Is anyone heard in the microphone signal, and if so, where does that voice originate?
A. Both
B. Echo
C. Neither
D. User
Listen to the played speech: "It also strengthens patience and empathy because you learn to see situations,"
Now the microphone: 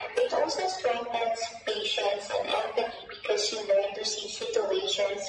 B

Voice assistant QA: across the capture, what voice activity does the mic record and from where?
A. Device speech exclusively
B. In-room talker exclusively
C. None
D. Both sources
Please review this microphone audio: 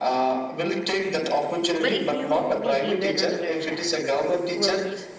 D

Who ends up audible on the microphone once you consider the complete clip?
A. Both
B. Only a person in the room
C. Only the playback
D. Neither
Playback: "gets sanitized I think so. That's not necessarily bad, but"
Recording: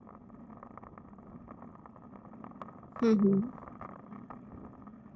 B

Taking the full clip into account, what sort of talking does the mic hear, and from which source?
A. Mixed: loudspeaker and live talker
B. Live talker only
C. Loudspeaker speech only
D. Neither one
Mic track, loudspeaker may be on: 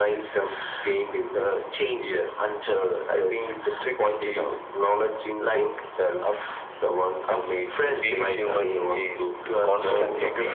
A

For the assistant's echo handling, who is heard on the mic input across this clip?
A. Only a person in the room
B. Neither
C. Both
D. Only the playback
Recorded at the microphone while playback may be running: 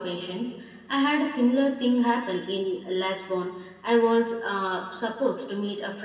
D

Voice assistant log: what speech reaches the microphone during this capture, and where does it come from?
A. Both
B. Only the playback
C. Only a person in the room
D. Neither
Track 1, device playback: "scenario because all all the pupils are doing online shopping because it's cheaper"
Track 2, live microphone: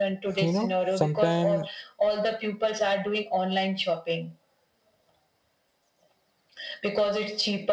A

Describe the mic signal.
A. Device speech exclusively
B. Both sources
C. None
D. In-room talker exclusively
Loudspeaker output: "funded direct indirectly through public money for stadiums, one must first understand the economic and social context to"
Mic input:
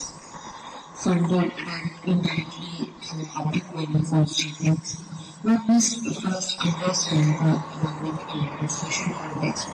A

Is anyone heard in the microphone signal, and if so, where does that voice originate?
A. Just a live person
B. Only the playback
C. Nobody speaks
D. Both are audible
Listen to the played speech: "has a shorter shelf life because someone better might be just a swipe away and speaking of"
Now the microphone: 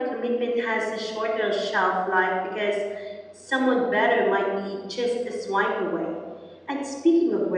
B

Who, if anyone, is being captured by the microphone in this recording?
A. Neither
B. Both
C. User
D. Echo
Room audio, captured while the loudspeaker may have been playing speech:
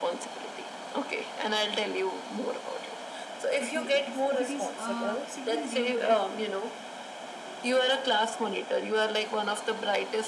B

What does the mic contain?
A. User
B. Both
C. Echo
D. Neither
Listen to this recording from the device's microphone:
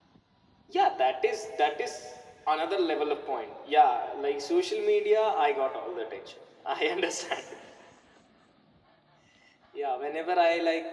C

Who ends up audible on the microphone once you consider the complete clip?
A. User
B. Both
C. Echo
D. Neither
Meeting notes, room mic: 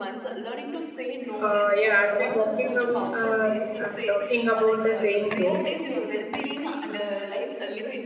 B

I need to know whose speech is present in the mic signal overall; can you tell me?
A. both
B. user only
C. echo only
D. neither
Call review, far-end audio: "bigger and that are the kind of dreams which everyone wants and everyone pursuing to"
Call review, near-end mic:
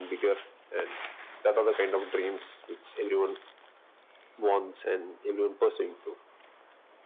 C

